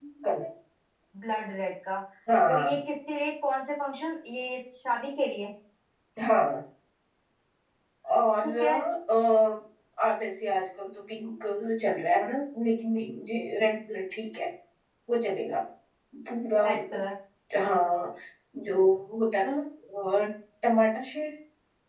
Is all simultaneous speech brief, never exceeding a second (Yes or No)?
Yes